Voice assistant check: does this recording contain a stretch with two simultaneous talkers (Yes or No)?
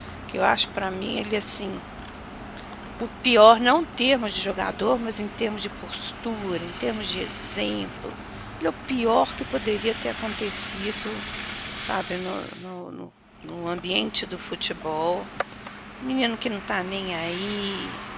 No